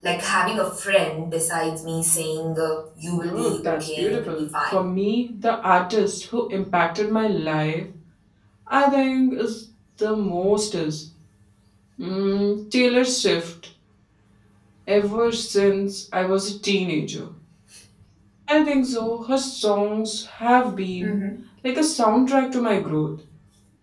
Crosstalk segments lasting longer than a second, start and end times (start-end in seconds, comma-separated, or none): 3.2-4.8